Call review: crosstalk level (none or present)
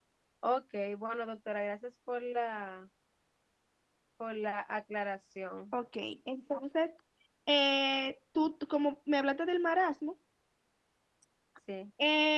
none